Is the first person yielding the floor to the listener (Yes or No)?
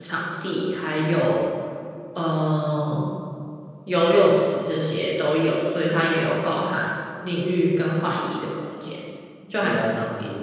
Yes